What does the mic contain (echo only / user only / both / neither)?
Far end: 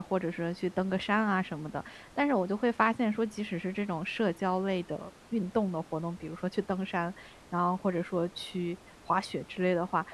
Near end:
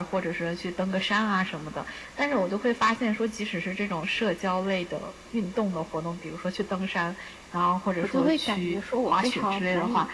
both